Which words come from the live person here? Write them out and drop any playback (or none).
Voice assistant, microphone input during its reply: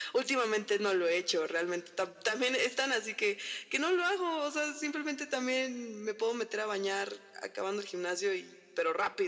none